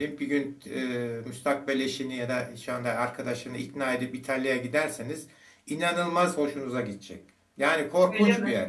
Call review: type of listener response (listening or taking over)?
listening